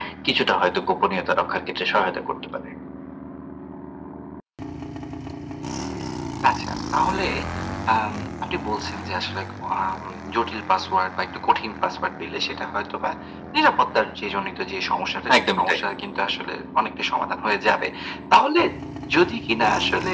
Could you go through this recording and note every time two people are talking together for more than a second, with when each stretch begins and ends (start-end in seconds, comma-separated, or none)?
none